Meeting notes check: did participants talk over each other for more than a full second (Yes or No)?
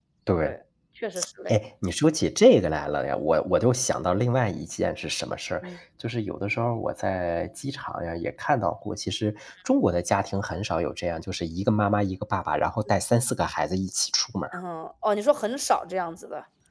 No